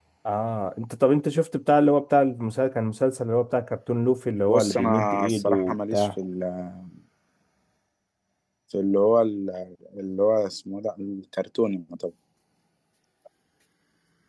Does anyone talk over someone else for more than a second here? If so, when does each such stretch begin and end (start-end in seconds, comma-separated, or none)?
4.5-6.1